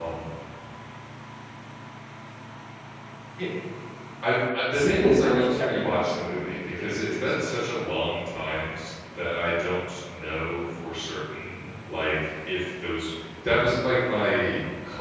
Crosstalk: present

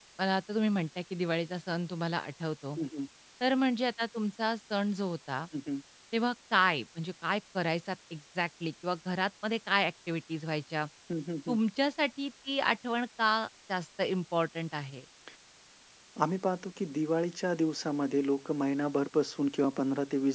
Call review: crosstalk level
none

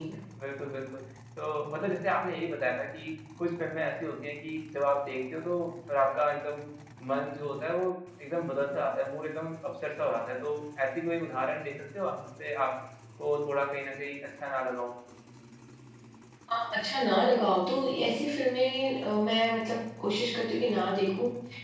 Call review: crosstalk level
none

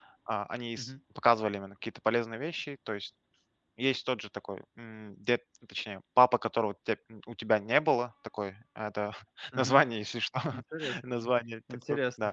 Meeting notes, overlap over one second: none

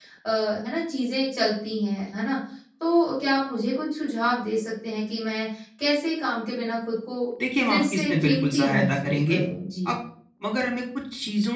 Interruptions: present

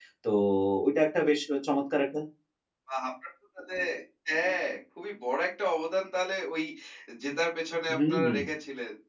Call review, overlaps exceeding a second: none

